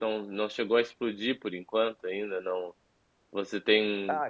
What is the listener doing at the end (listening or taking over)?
listening